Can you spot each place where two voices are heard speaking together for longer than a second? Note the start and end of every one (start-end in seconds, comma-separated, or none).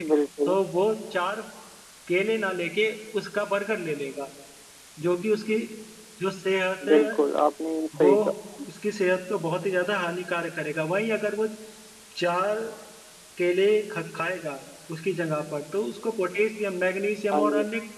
none